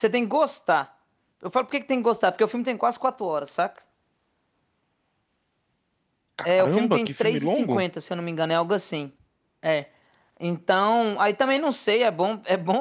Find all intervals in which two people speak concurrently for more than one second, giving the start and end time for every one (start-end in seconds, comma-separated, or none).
6.4-7.8